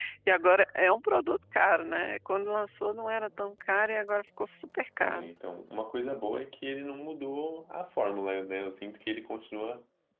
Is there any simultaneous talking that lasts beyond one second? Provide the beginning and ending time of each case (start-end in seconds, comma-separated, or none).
none